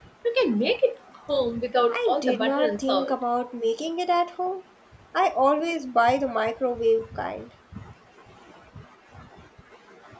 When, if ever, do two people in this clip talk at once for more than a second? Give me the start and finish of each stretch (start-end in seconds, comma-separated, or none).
1.9-3.2